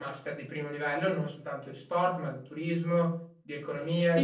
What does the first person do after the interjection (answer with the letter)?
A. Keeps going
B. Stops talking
A